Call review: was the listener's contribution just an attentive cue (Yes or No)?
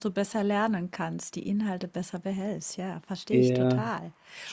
No